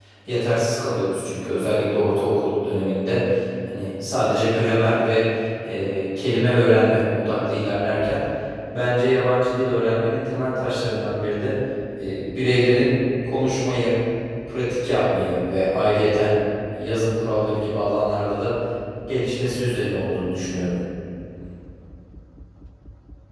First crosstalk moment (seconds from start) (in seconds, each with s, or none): none